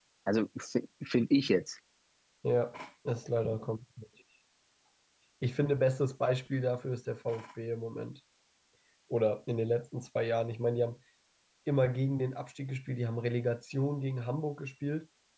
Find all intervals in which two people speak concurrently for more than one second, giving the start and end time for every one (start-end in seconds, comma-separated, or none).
none